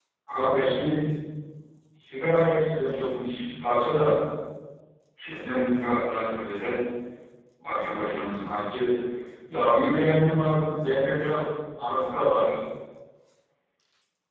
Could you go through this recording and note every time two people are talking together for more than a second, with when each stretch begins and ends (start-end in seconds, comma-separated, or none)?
none